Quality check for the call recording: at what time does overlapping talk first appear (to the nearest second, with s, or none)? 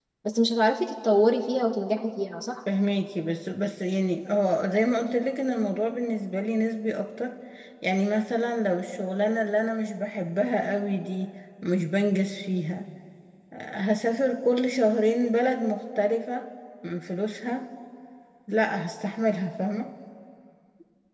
none